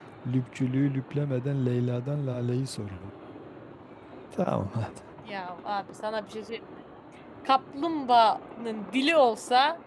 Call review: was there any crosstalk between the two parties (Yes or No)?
No